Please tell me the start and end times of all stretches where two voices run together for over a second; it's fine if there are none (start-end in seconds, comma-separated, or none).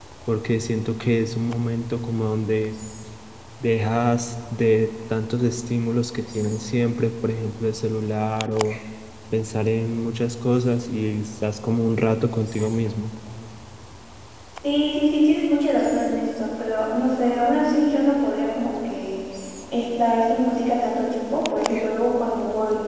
none